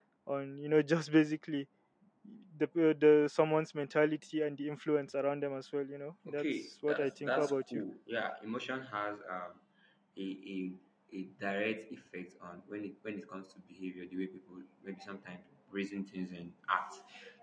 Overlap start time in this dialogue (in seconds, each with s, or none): 6.3 s